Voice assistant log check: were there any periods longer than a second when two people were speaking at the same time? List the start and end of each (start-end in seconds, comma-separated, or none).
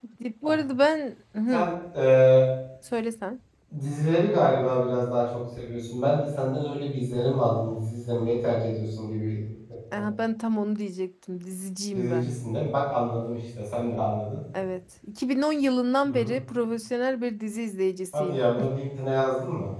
none